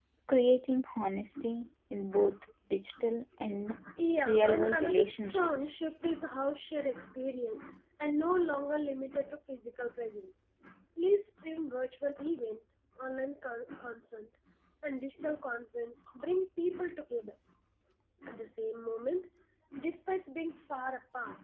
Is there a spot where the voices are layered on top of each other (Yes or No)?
Yes